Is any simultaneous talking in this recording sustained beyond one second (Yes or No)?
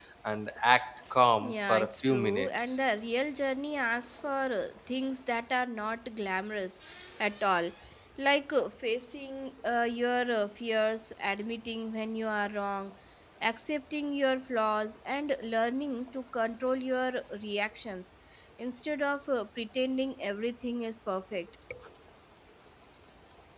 Yes